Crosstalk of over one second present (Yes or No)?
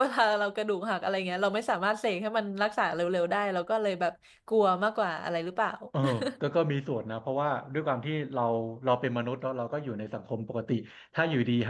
No